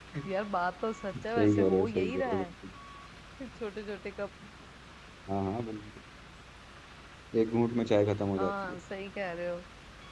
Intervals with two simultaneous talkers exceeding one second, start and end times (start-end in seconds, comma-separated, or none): 1.1-2.5